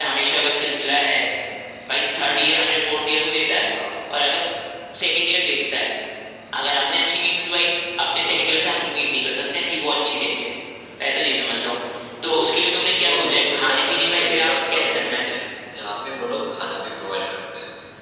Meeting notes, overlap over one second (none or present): present